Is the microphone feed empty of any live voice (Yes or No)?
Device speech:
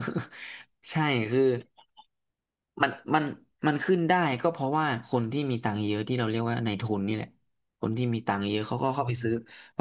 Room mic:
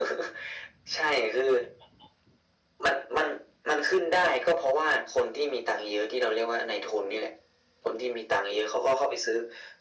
Yes